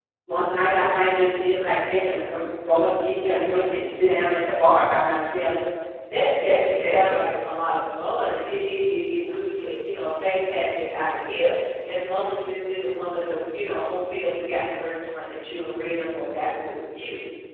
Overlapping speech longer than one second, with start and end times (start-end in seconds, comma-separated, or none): none